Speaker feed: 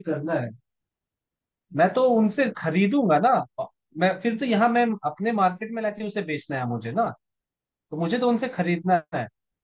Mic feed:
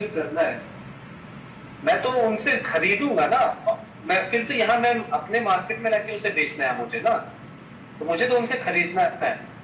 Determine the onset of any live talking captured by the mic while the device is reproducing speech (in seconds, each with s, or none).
none